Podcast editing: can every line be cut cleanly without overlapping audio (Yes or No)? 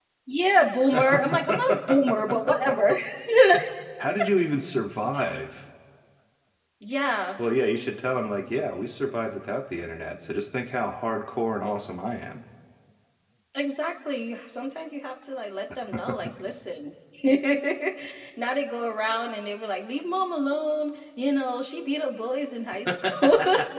No